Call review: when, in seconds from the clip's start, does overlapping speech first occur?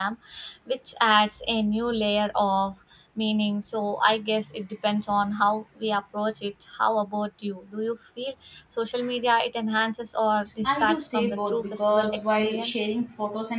10.7 s

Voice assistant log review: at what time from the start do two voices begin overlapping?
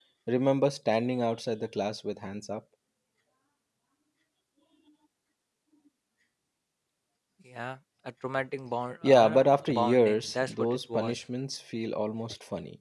9.0 s

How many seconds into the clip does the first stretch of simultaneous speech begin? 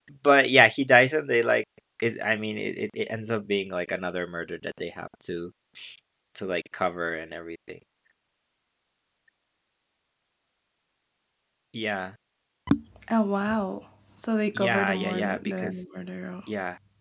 14.6 s

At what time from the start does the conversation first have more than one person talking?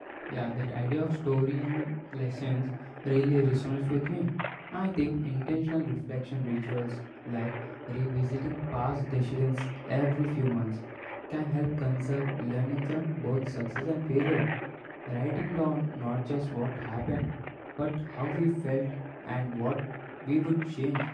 none

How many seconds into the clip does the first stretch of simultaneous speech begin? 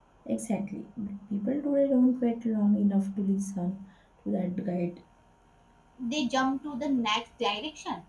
none

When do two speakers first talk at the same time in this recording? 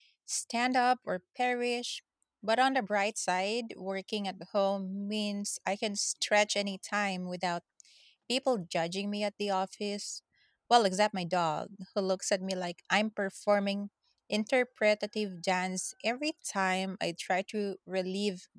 none

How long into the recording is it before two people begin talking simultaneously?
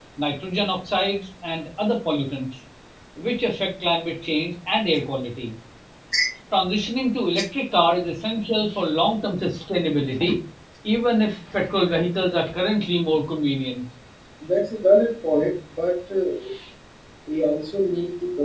none

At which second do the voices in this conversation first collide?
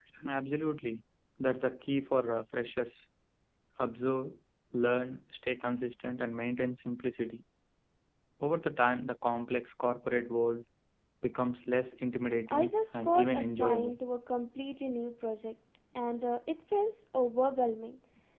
12.5 s

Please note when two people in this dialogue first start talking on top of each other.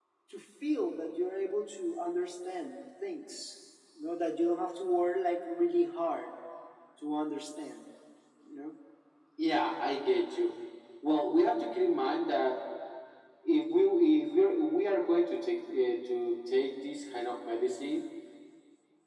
none

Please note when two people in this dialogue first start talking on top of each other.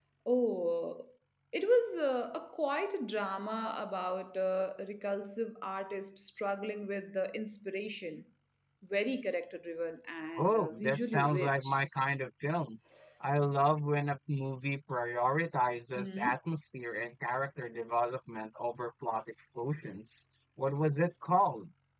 10.4 s

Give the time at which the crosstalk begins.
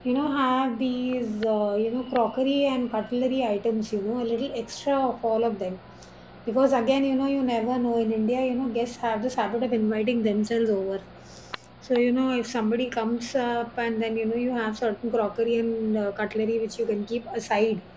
none

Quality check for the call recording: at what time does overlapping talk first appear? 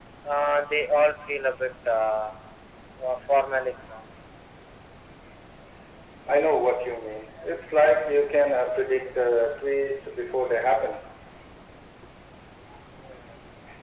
none

